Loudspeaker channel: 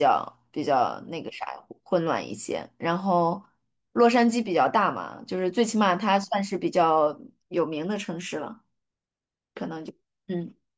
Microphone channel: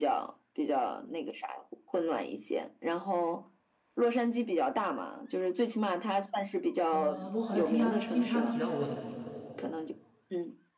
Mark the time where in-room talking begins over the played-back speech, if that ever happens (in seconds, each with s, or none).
6.9 s